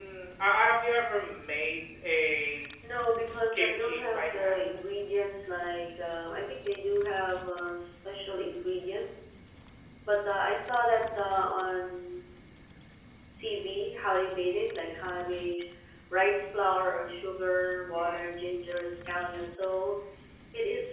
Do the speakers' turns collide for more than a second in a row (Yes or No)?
Yes